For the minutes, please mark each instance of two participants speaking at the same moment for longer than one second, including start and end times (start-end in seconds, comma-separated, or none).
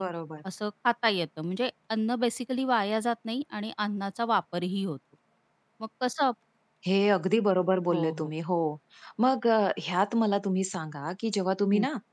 none